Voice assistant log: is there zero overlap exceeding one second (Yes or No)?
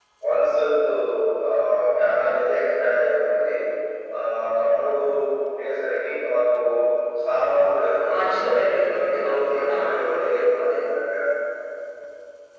No